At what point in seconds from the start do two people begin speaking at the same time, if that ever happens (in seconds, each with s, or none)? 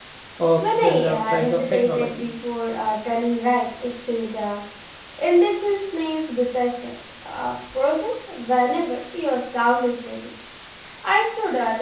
0.6 s